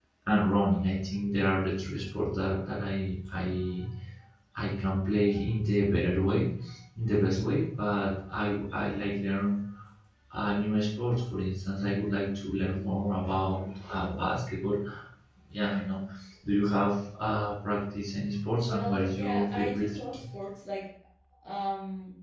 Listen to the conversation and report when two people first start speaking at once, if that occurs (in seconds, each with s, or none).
18.7 s